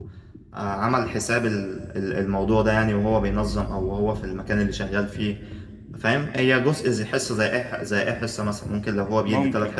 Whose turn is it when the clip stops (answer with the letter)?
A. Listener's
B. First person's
B